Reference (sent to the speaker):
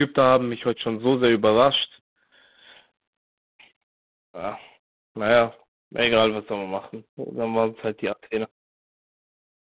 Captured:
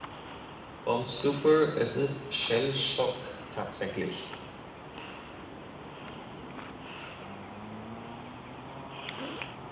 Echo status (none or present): none